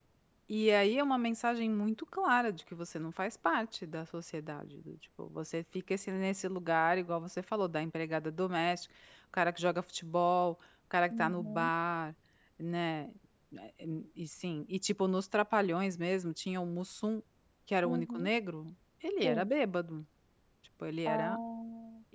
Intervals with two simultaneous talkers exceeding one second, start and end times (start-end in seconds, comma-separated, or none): none